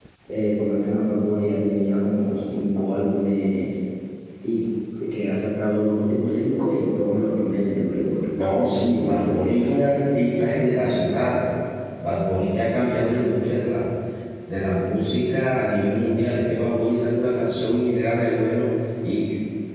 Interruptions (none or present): present